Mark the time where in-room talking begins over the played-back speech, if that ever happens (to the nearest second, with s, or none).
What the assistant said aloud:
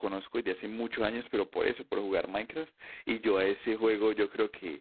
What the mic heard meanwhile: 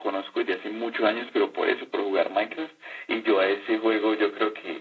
none